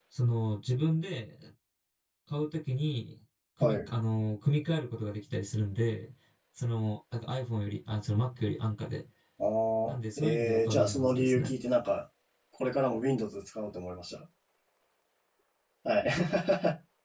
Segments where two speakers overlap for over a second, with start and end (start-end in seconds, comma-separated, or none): 9.9-11.6